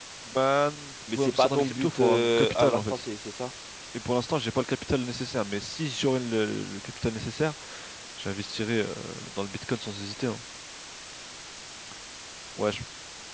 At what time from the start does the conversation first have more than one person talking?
1.1 s

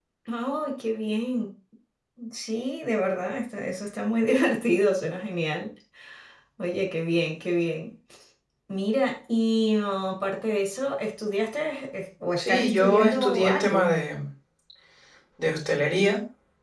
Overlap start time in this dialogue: 12.4 s

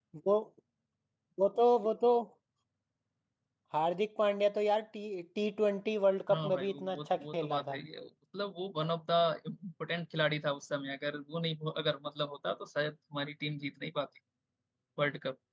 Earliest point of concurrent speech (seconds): 6.3 s

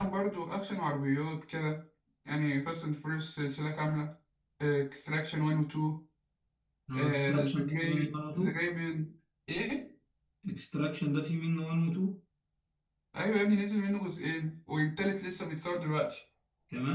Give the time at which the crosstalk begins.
6.9 s

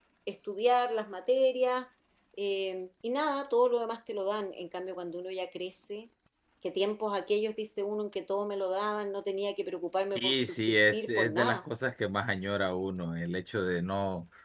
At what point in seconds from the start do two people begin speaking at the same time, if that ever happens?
10.2 s

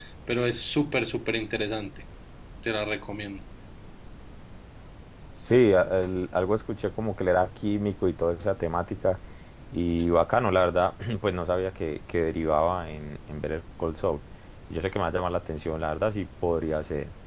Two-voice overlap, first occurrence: none

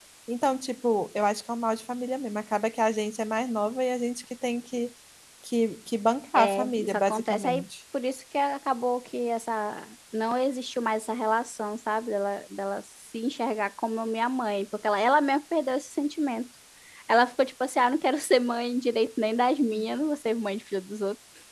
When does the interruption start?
6.3 s

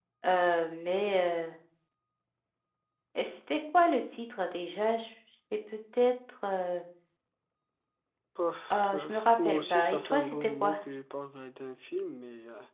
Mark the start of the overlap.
8.7 s

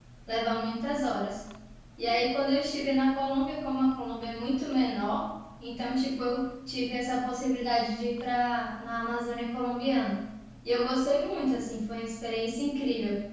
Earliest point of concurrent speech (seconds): none

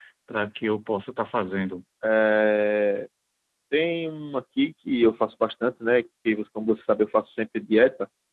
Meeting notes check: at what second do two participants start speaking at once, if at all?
none

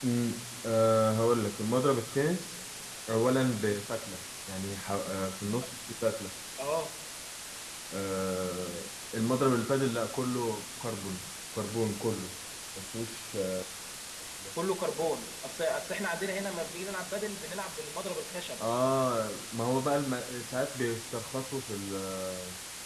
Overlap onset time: none

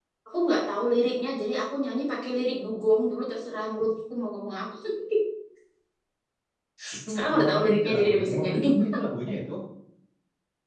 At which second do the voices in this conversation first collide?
6.9 s

